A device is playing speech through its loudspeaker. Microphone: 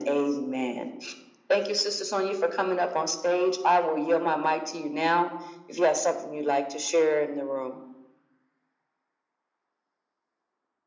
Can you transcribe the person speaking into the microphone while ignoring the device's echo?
none

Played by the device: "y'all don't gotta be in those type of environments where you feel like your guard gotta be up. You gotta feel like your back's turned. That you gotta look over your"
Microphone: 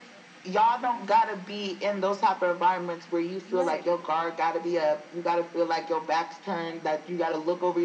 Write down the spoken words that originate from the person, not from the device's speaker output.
Right.

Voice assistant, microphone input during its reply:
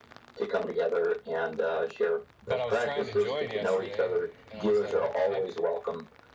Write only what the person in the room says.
but I was trying to join yesterday, and I was like, "What the heck?

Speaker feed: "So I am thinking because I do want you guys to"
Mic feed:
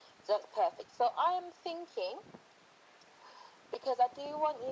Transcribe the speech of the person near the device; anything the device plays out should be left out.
none

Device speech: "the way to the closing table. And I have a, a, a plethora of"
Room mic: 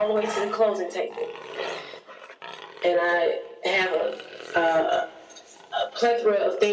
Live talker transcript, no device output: none

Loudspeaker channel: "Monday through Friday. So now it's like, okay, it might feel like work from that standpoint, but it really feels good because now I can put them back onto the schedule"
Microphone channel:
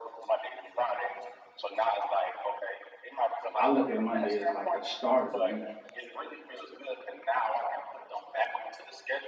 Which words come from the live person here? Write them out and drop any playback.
I look at Monday as like the start of the week,

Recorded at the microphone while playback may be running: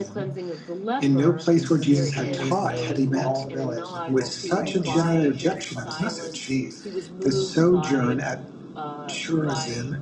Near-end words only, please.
and since he was known to all the village, the people could plainly see that he had been cleansed of his disease.

